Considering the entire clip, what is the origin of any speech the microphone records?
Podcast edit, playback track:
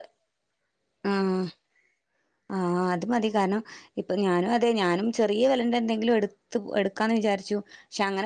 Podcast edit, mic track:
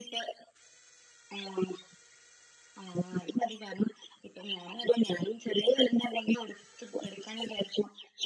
echo only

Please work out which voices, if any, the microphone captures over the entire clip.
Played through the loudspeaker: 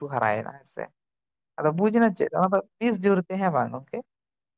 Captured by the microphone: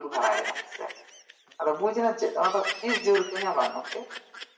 echo only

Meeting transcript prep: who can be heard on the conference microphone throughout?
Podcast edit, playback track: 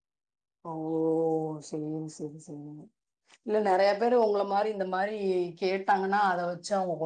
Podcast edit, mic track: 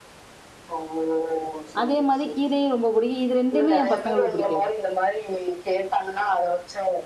both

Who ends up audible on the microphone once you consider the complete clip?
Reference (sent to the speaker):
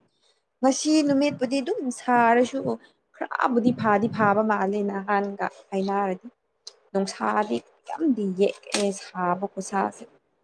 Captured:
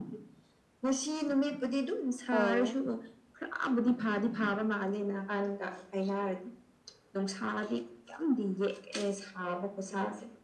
both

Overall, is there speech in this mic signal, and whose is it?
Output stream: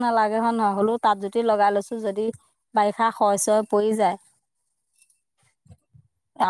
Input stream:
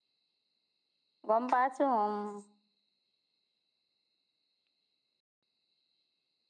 user only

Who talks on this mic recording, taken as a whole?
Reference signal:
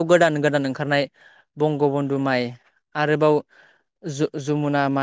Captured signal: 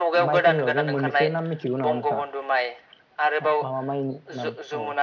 both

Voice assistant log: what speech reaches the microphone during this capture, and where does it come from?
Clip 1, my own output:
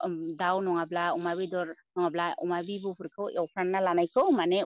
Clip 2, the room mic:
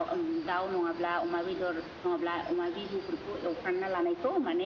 echo only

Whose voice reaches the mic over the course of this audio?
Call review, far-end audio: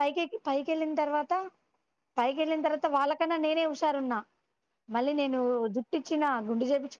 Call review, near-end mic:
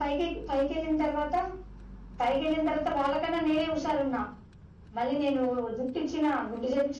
echo only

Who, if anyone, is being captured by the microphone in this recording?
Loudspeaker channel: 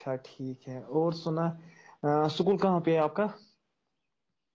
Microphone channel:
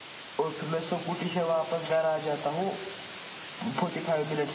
user only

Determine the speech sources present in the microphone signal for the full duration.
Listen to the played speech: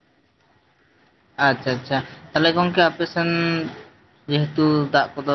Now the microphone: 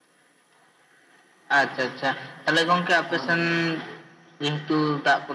both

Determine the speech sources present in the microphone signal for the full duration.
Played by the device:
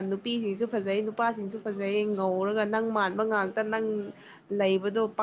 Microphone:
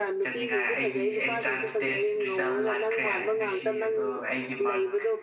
both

